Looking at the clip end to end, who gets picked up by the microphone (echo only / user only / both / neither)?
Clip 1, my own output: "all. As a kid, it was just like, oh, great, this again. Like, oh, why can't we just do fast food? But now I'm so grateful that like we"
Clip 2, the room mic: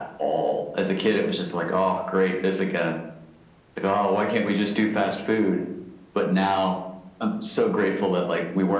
echo only